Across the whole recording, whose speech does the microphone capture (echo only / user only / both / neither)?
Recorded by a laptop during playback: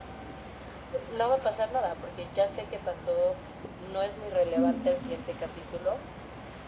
both